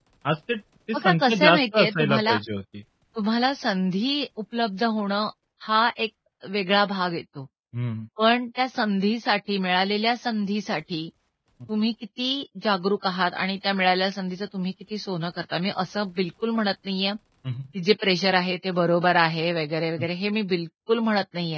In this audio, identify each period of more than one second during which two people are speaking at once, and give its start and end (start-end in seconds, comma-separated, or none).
0.9-2.4